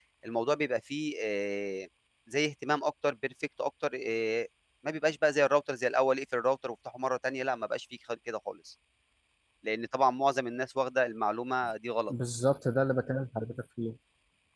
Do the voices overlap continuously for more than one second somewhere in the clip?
No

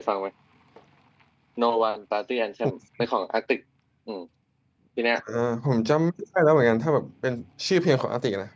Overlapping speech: No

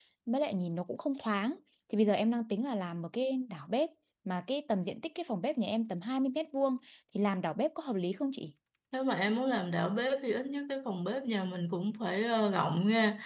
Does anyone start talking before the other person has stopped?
No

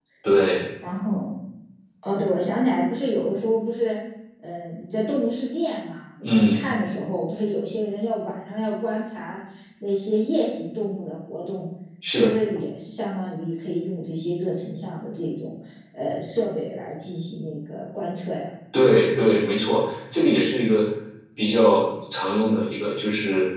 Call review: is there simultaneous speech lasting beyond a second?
No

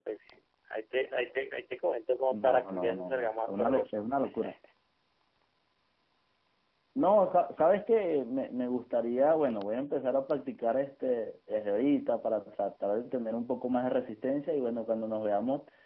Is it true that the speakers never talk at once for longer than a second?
No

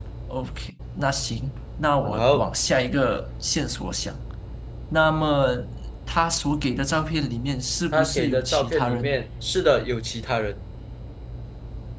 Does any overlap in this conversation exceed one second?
Yes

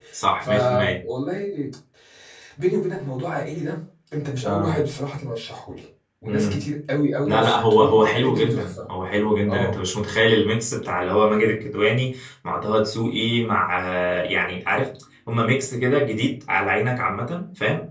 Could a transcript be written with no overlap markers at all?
No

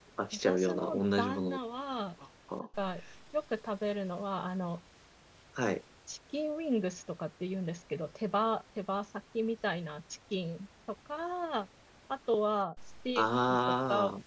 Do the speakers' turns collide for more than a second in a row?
Yes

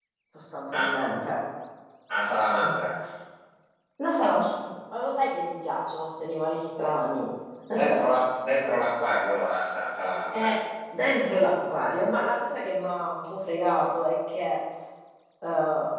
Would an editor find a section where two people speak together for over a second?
No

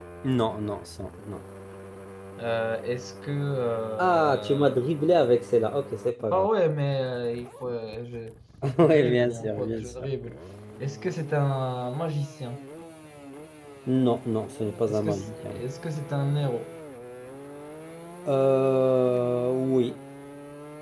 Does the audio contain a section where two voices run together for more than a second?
Yes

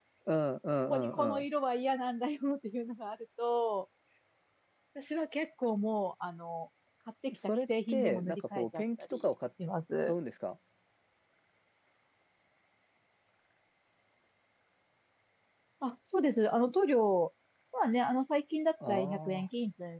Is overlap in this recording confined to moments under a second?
No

